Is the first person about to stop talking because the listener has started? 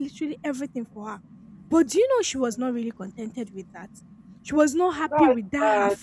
No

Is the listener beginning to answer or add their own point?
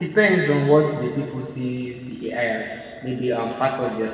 No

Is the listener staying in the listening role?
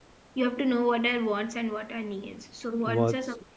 Yes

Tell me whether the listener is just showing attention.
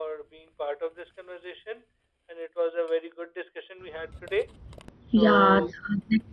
No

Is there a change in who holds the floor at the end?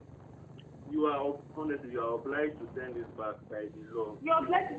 Yes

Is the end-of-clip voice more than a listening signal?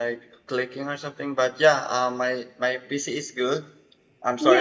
Yes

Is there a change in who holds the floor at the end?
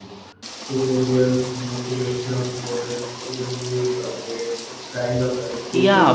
Yes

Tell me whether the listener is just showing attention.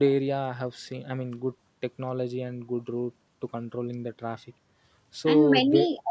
No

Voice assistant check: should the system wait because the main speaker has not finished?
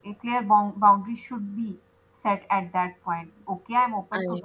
Yes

